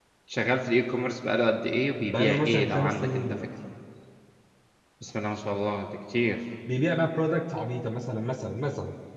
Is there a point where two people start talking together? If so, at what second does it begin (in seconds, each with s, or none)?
2.1 s